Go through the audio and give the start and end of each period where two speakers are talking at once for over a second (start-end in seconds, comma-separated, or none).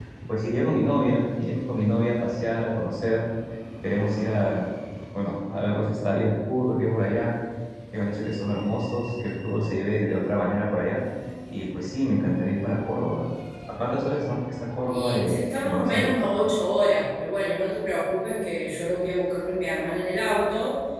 14.9-16.2